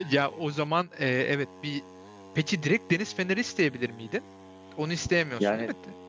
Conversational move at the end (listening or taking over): taking over